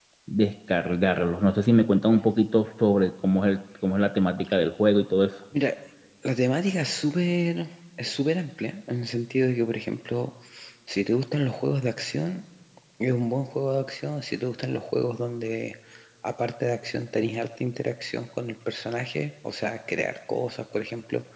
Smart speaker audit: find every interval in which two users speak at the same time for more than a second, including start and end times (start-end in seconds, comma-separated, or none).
none